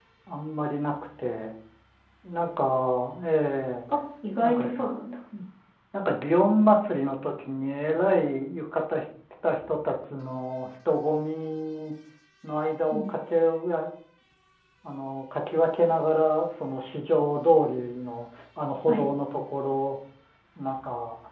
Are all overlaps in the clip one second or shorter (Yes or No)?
Yes